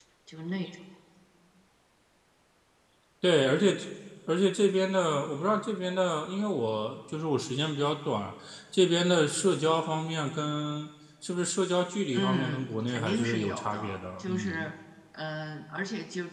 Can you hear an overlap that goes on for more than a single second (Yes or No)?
Yes